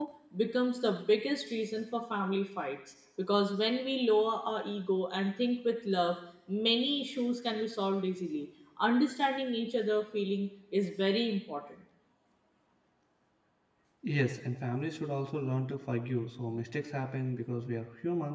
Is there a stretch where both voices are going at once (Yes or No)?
No